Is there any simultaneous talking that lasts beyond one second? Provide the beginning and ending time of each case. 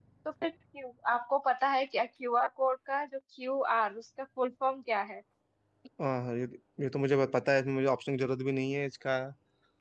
none

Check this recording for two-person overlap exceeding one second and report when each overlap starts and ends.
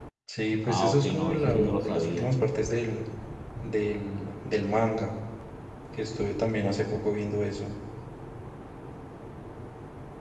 0.7-2.3

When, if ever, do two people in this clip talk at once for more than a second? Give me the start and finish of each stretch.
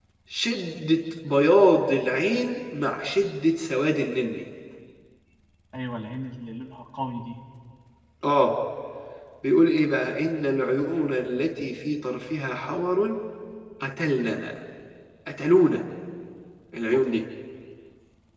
none

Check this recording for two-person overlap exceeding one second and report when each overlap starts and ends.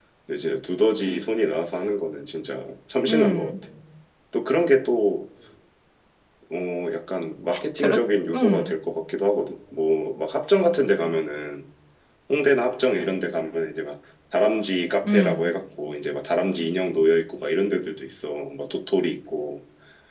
none

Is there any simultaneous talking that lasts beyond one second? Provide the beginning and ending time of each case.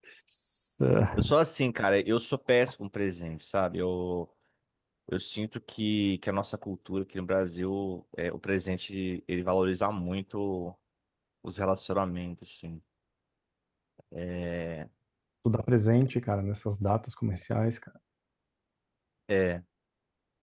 none

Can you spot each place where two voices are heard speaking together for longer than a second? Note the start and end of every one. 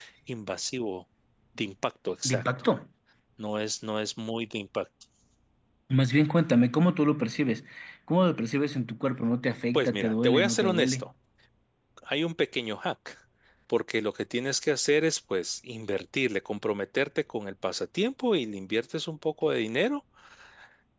9.7-11.1

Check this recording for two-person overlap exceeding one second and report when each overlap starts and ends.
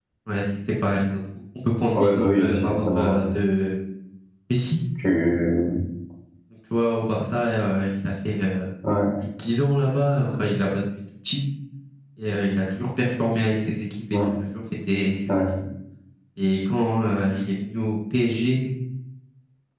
1.9-3.2

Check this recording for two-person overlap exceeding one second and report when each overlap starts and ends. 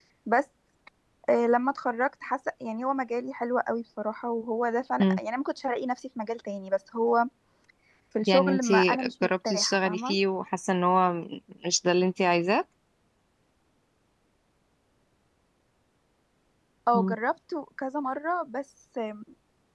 8.3-10.2

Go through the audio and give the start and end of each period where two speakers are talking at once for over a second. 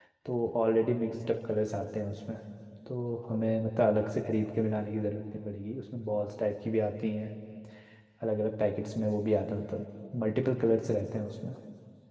none

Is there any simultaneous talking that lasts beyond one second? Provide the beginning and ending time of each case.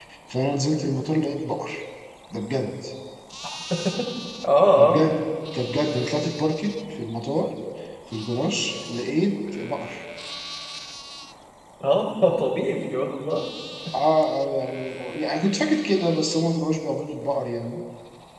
none

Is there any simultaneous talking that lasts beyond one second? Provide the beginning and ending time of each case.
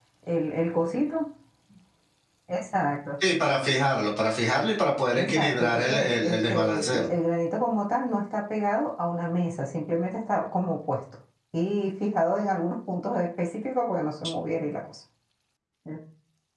5.2-7.0

